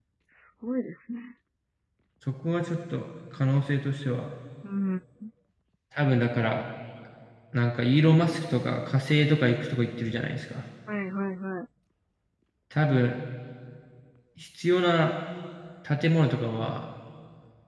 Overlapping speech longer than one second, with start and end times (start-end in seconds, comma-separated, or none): none